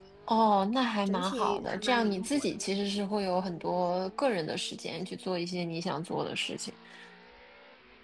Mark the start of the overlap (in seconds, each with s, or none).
1.1 s